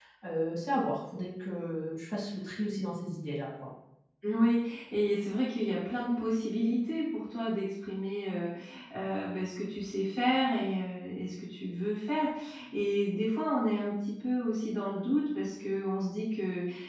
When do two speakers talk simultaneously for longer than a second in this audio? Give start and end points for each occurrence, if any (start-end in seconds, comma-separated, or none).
none